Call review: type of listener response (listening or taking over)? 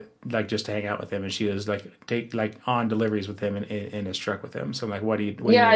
taking over